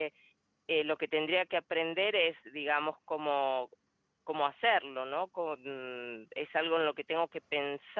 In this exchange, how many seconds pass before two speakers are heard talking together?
none

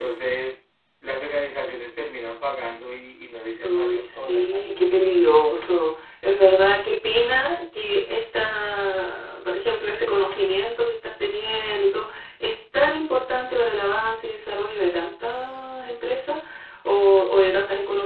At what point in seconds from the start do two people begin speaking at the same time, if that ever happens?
3.6 s

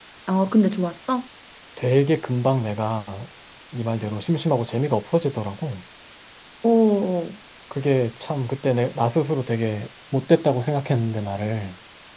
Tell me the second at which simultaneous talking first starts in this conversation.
none

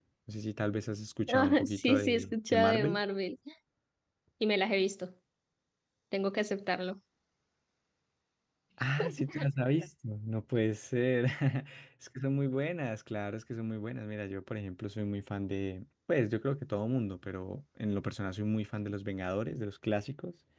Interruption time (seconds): 1.3 s

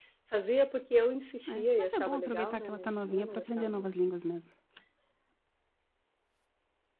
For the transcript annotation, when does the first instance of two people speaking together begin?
1.5 s

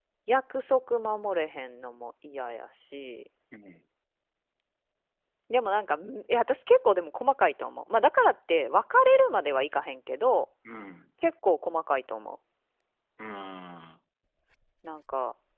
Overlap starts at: none

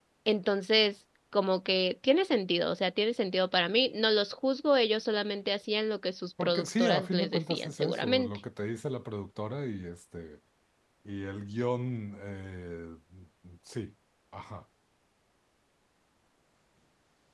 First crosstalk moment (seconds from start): 6.4 s

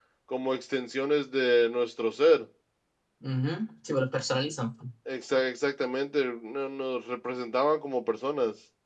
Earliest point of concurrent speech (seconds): none

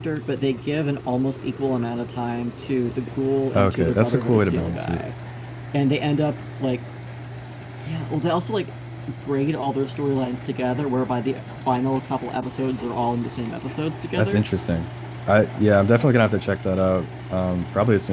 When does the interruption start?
3.5 s

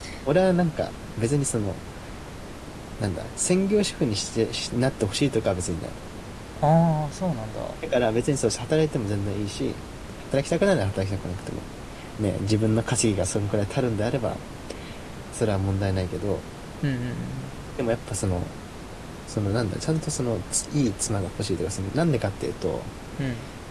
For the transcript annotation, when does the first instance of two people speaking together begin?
none

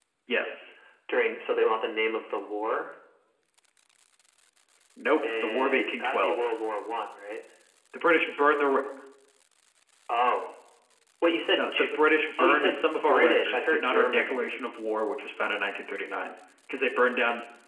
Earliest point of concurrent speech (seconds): 5.3 s

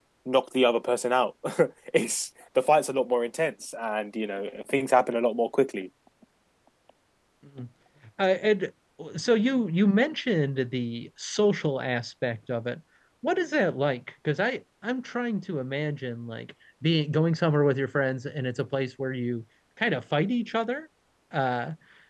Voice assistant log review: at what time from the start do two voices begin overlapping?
none

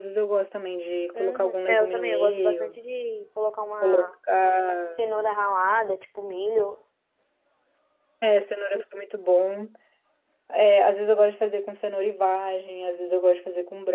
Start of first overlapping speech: 1.1 s

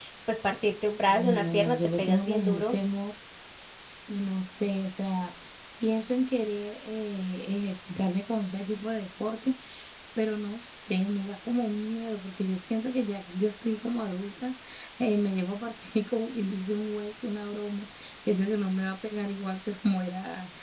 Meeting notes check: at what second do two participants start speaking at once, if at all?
1.1 s

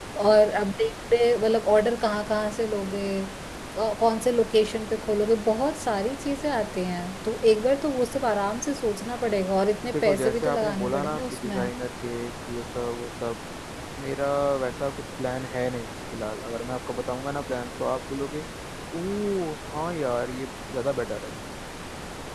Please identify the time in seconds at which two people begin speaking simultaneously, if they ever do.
9.8 s

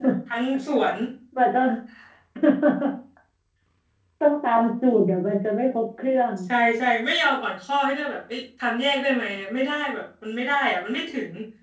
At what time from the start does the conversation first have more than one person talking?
none

